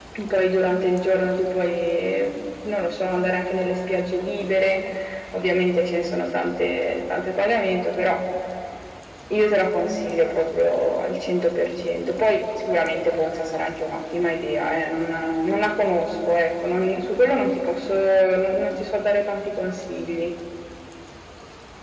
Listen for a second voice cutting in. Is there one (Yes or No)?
No